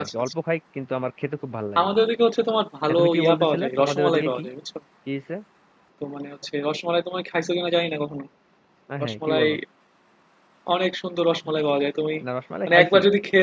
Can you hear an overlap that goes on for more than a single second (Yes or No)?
Yes